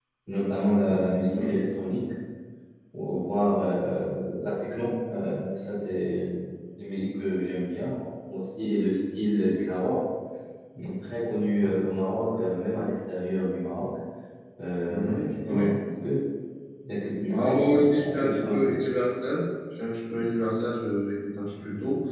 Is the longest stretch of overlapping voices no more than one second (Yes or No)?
No